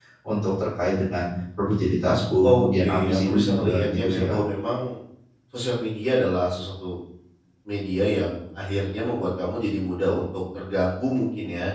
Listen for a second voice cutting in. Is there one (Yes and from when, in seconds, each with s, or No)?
Yes, from 2.4 s